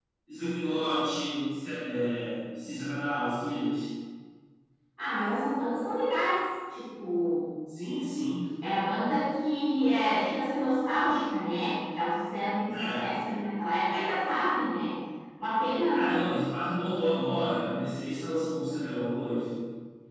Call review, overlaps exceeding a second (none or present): none